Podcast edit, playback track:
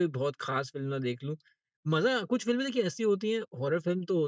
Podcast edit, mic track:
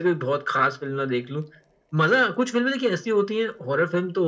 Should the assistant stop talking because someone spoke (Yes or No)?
No